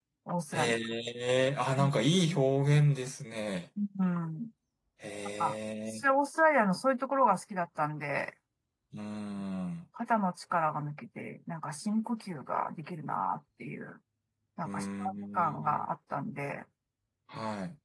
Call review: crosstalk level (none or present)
present